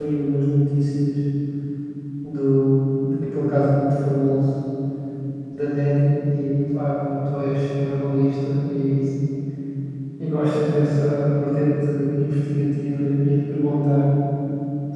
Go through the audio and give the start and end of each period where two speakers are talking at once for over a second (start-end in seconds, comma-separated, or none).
none